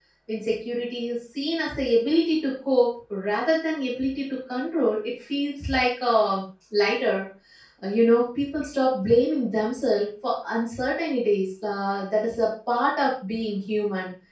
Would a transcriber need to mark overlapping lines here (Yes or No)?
No